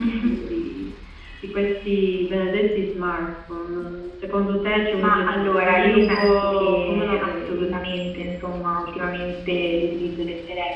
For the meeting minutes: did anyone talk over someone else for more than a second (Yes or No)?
Yes